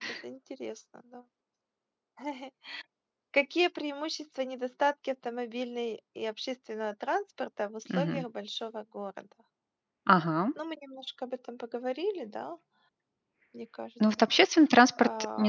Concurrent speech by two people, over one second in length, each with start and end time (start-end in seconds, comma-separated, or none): none